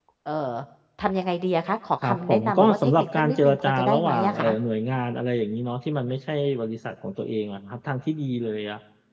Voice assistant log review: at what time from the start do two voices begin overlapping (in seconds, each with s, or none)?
2.0 s